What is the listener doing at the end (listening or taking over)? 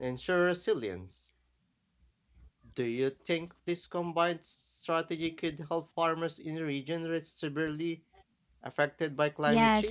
taking over